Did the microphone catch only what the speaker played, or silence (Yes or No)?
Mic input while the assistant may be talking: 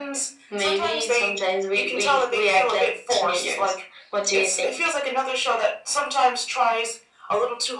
Yes